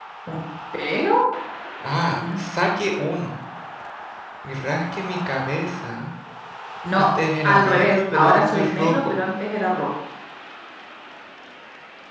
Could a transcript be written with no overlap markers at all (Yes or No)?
No